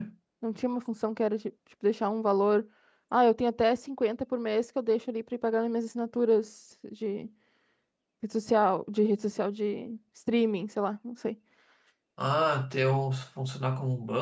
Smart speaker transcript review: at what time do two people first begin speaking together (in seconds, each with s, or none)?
none